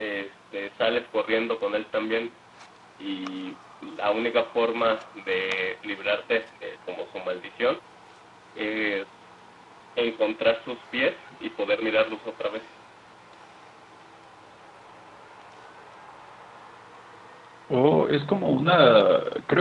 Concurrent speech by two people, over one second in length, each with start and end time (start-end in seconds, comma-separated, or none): none